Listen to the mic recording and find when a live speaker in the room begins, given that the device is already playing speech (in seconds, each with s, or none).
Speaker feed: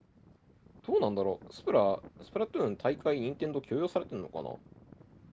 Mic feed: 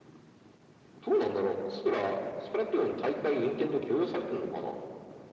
none